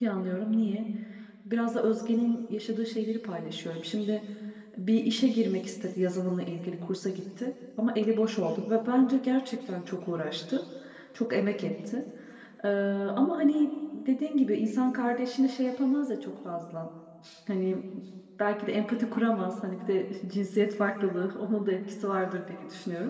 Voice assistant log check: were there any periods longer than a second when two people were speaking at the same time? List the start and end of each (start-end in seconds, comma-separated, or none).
none